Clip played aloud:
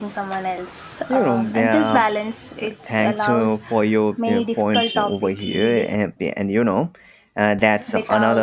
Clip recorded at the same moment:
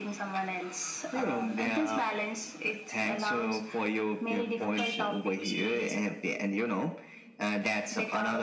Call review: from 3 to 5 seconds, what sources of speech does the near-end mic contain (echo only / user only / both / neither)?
echo only